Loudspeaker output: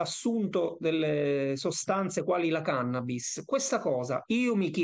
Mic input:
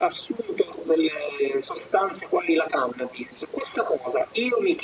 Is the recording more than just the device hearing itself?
No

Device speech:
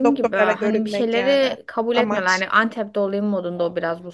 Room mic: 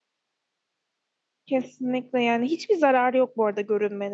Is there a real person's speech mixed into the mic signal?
Yes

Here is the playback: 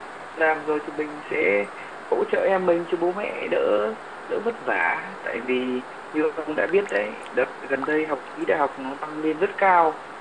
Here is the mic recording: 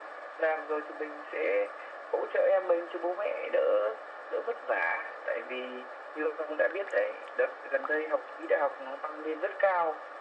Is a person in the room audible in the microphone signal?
No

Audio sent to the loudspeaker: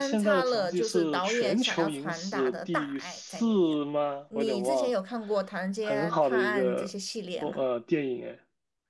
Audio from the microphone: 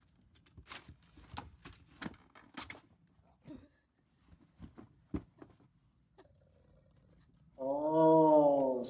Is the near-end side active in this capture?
Yes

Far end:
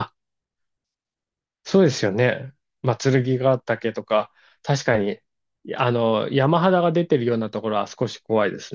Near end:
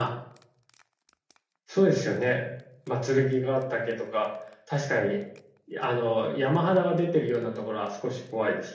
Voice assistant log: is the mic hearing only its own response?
Yes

